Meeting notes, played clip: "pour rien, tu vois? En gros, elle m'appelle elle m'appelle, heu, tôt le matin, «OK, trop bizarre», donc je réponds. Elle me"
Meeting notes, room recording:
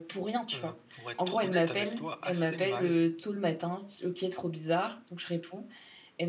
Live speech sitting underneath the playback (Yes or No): Yes